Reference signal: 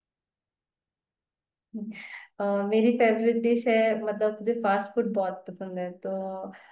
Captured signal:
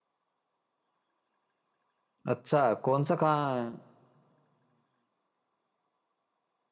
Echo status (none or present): none